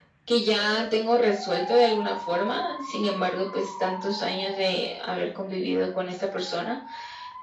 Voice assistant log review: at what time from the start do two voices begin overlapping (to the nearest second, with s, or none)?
none